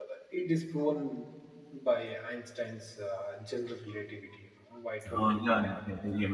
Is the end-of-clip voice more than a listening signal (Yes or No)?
Yes